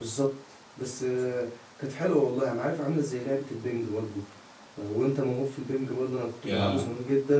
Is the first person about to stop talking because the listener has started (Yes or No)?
No